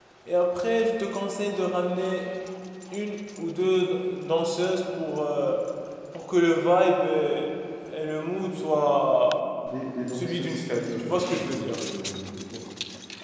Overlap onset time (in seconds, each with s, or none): 10.1 s